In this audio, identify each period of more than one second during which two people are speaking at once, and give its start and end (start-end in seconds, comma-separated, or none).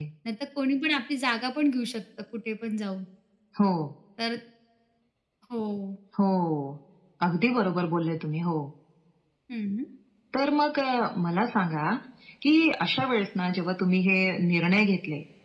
none